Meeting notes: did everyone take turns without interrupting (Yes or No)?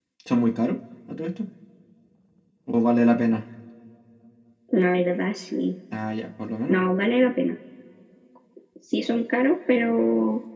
Yes